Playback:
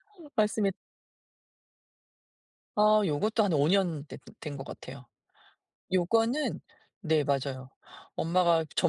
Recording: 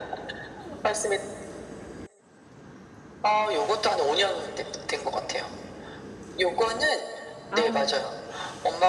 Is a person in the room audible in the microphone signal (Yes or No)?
Yes